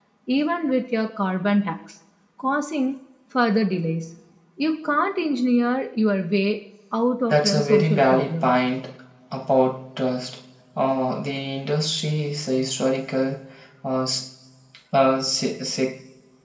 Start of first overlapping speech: 7.3 s

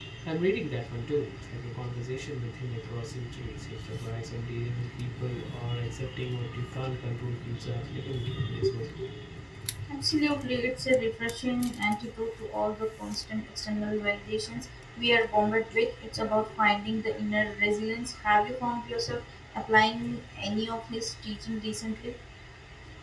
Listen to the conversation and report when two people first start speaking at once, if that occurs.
none

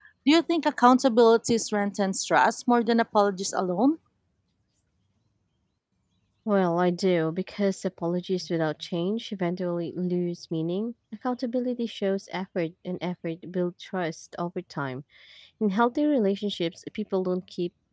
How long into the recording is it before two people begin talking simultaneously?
none

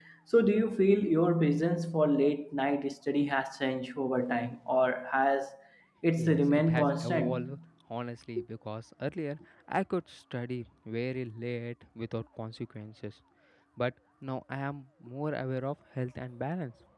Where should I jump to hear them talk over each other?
6.2 s

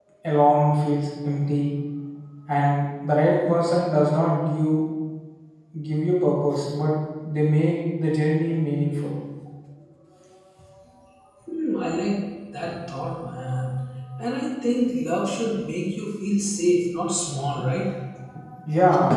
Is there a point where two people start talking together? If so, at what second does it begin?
none

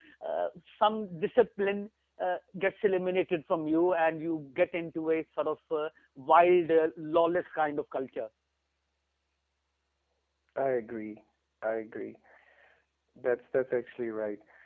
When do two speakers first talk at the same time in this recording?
none

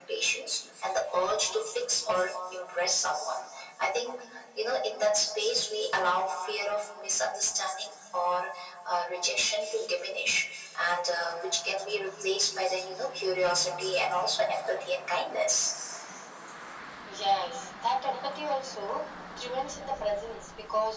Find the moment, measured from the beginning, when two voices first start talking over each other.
none

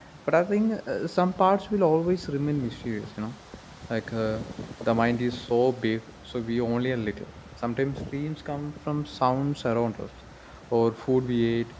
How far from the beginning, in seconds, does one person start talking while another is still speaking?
none

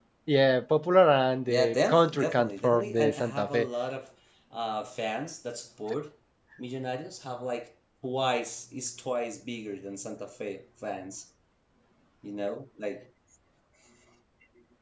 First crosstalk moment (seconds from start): 1.5 s

